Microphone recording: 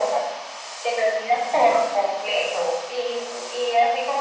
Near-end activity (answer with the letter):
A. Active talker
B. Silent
B